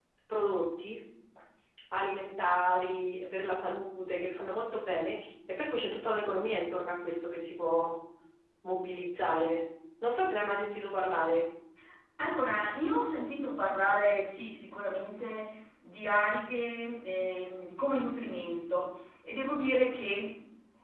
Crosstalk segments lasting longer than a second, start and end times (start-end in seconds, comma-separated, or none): none